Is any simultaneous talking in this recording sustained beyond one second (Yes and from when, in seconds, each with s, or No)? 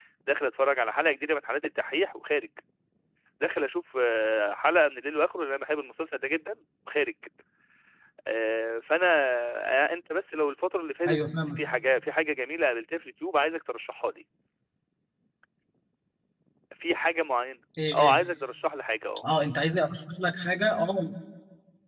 No